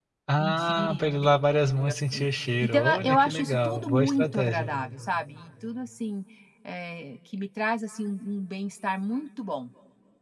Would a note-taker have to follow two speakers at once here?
Yes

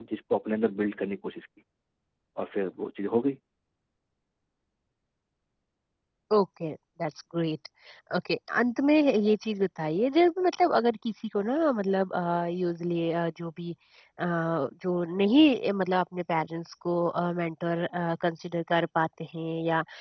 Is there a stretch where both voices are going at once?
No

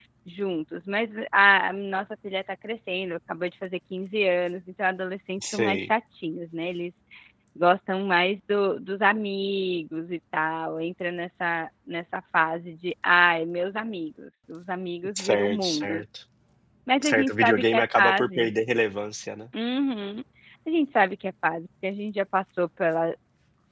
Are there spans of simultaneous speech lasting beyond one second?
Yes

